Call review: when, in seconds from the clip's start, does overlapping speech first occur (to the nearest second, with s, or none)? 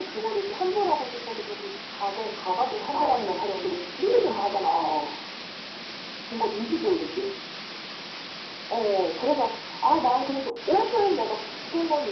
3 s